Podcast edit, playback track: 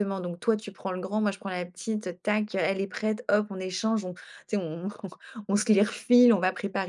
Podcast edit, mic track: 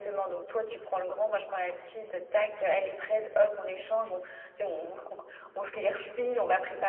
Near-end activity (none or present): none